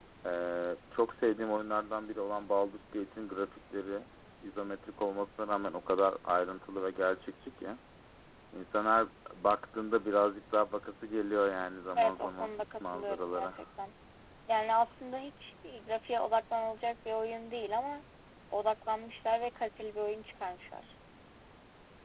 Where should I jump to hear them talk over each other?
12 s

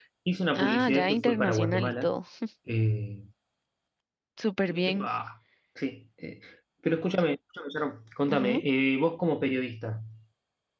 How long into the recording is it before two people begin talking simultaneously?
1 s

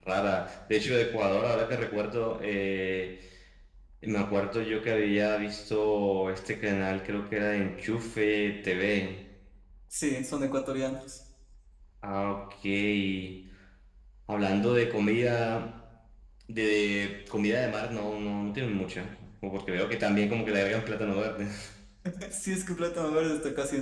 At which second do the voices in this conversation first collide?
none

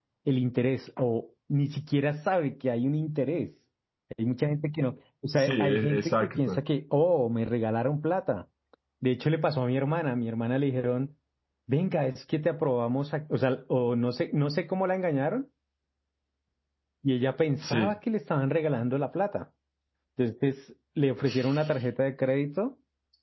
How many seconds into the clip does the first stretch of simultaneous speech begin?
5 s

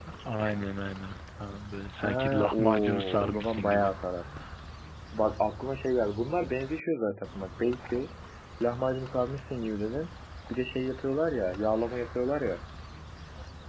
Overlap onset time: 2 s

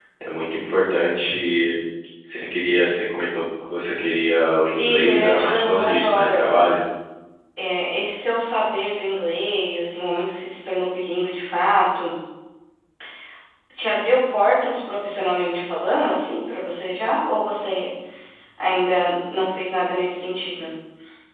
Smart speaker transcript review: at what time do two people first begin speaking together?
5 s

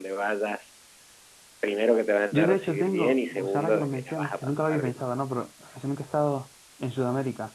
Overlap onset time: 2 s

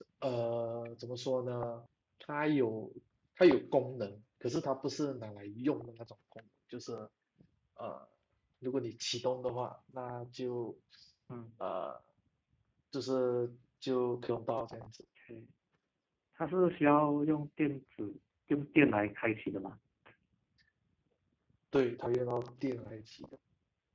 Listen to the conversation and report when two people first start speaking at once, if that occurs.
none

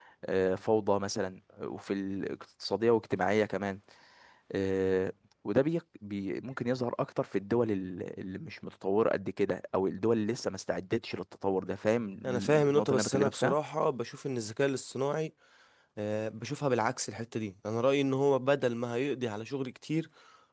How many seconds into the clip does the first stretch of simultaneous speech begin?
12 s

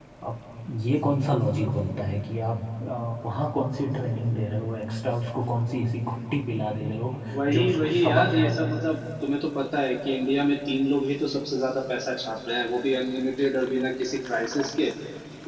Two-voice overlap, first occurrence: 7 s

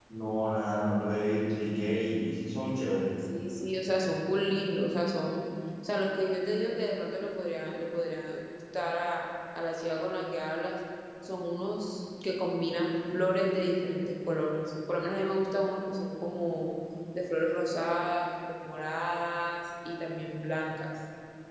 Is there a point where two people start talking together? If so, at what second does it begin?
none

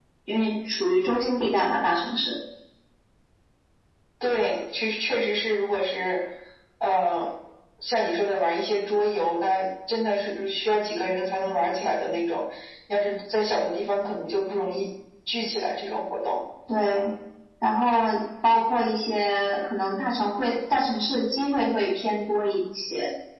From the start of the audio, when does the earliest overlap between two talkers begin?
none

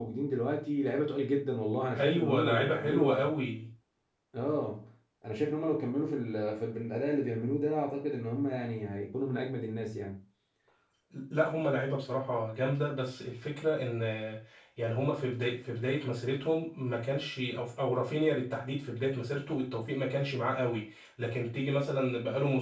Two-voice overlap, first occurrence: 2 s

